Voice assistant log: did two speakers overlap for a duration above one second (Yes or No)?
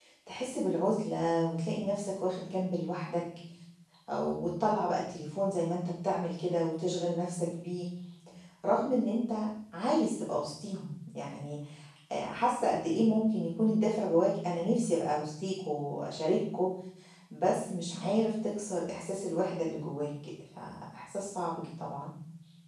No